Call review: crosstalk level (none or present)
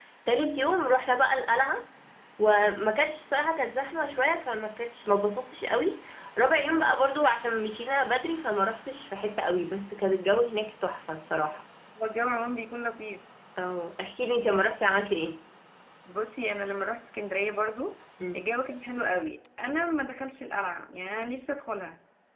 none